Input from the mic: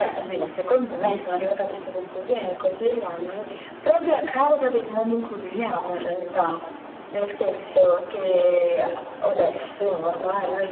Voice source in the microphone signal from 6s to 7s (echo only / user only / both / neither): echo only